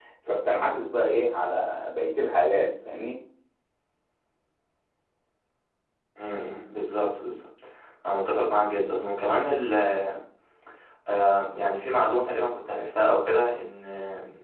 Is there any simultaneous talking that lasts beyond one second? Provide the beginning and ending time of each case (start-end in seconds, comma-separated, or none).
none